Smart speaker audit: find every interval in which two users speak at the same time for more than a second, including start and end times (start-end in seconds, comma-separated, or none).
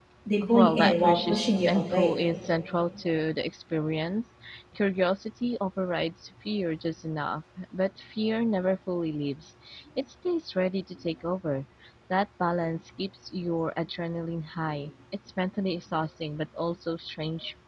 0.5-2.2